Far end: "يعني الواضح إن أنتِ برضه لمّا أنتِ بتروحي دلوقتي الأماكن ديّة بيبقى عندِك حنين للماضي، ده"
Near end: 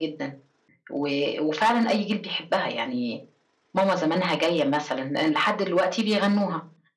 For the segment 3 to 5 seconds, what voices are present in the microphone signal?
user only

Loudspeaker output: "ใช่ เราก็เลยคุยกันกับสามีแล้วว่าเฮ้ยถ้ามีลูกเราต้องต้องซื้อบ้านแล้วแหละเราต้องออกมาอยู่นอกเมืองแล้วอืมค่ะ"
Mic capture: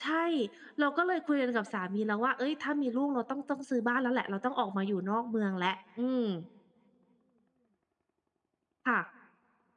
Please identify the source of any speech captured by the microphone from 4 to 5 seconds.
echo only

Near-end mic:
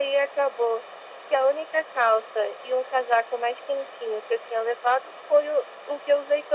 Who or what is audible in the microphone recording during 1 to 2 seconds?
echo only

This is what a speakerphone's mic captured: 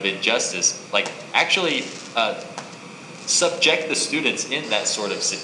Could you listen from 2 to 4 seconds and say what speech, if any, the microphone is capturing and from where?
echo only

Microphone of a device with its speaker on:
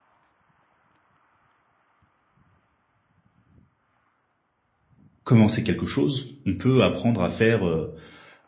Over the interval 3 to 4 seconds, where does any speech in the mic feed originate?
neither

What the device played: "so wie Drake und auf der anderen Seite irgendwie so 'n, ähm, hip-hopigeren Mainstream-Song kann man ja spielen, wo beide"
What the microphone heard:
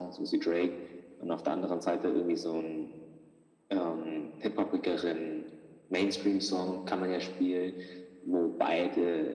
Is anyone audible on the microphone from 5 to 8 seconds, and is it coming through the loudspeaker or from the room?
echo only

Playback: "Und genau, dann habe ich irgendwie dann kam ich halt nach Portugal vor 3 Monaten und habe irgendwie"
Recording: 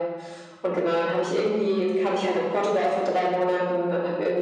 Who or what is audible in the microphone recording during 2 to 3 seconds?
echo only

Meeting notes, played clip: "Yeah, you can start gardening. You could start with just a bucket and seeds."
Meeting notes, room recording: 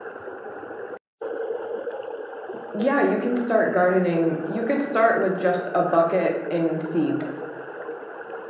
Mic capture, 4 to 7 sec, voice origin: echo only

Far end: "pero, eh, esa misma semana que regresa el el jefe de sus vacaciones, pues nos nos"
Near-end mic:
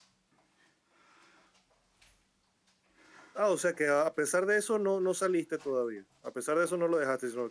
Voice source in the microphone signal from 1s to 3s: neither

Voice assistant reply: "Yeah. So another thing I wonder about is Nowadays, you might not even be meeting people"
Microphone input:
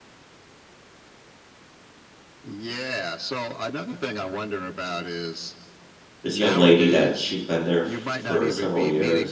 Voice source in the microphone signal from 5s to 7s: both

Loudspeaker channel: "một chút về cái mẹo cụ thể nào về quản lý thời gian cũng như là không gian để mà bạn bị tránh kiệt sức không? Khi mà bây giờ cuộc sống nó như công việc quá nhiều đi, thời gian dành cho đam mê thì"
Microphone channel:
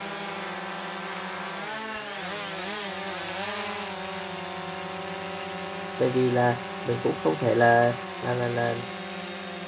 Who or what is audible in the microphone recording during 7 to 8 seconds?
user only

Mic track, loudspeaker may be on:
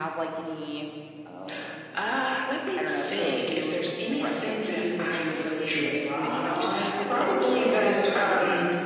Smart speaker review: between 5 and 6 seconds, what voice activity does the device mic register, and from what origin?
both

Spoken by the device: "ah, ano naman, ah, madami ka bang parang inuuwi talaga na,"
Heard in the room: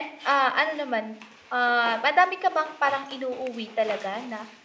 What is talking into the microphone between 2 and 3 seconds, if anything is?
echo only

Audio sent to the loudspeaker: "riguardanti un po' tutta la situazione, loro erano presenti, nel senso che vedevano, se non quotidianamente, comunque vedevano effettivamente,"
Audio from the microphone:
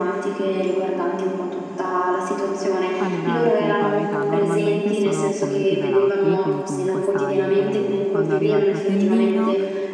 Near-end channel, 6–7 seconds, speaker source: both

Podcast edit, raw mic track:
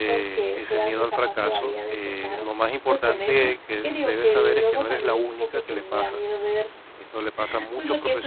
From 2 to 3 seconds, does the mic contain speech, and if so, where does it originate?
both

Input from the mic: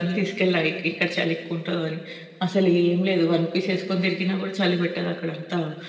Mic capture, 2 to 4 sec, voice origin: echo only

